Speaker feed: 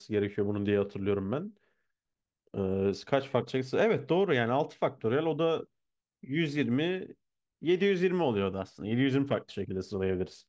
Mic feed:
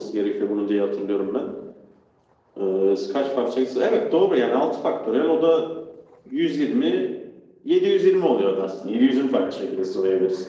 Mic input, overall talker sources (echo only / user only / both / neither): echo only